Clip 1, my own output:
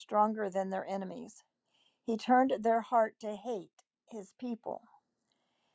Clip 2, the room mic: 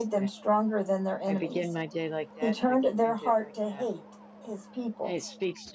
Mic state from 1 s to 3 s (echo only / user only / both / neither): both